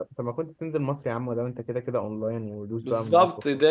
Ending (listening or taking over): taking over